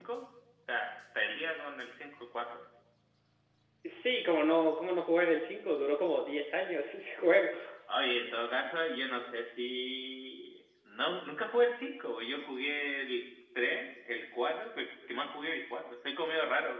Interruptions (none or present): none